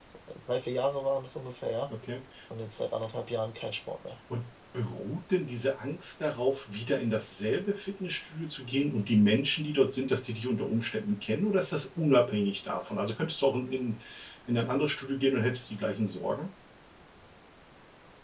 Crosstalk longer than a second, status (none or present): none